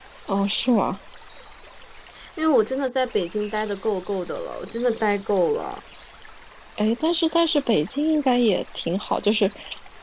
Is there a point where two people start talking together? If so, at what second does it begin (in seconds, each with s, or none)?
none